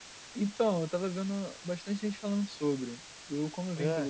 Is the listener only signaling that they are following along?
Yes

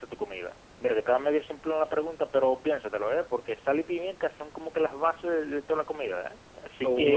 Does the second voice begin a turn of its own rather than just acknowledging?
Yes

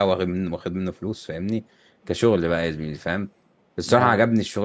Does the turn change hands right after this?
No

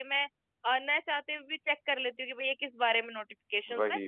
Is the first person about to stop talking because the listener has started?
No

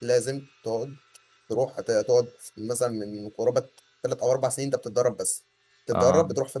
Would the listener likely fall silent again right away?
Yes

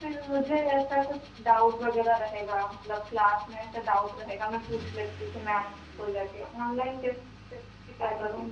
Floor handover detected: No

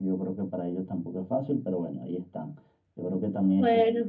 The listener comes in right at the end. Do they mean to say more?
Yes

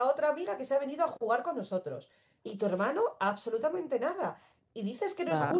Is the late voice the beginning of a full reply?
No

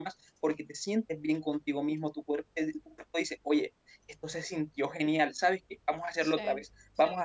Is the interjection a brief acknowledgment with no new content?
Yes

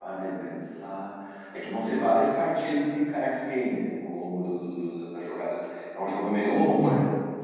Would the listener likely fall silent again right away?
Yes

